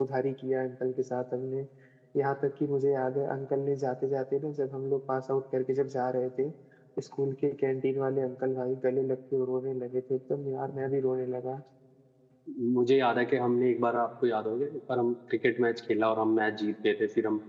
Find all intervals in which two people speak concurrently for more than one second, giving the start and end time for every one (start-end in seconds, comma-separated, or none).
none